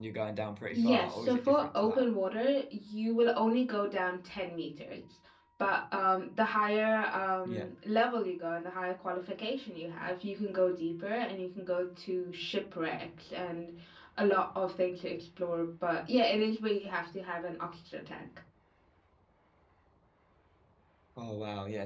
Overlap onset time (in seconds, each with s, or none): 0.7 s